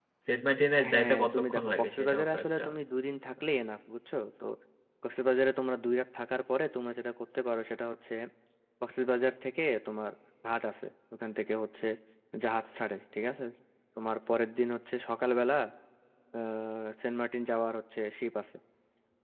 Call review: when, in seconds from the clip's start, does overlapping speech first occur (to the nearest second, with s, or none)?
1 s